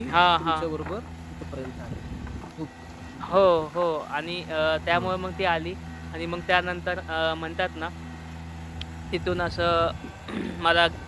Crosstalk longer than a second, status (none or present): none